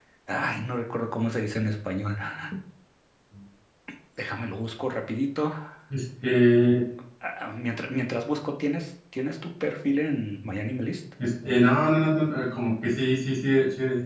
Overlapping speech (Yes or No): No